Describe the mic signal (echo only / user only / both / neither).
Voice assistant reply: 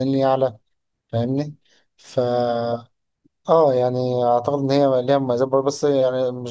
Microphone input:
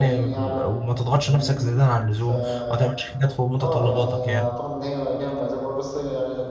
both